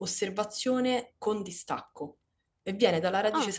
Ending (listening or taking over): listening